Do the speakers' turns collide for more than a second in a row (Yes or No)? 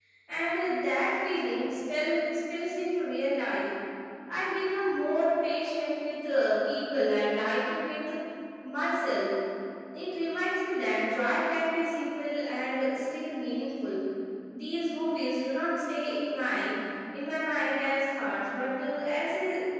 No